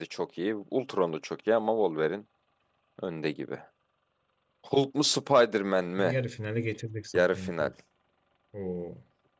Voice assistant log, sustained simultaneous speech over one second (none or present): none